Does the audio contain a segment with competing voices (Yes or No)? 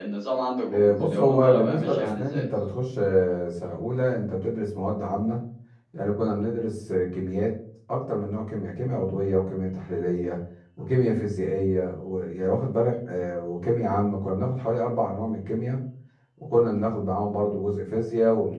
Yes